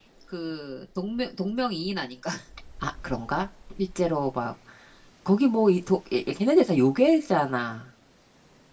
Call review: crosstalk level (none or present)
none